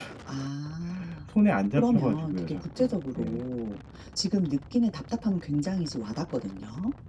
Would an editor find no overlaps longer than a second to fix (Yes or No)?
No